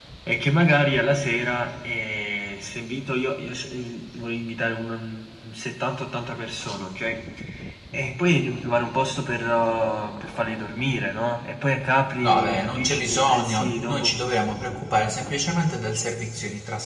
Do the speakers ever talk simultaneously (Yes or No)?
Yes